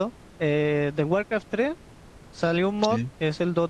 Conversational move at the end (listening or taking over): listening